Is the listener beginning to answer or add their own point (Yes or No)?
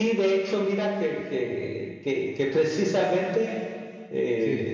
No